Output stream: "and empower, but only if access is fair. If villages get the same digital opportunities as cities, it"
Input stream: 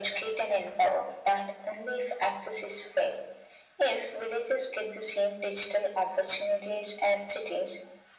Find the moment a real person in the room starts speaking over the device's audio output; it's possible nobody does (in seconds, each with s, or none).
none